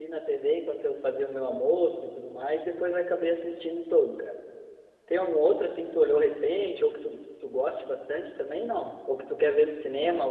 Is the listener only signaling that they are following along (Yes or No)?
Yes